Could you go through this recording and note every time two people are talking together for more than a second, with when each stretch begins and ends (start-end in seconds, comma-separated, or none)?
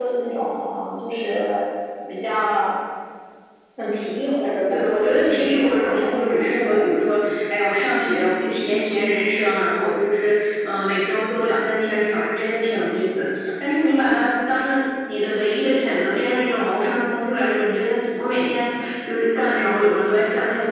4.7-6.8